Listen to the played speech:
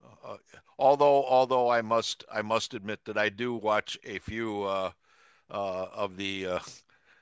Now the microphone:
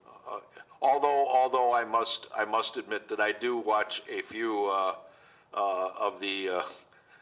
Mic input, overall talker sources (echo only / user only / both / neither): echo only